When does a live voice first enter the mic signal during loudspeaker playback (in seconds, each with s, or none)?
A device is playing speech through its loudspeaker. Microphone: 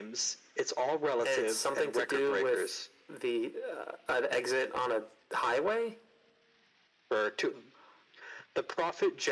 none